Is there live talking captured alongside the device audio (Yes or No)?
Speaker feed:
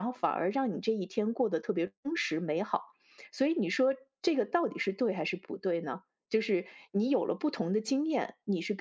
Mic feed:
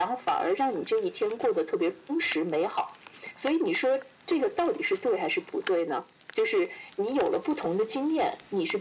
No